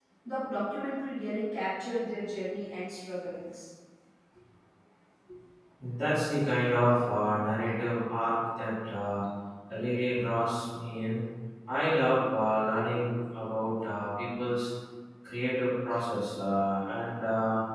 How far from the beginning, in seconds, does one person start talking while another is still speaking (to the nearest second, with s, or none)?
none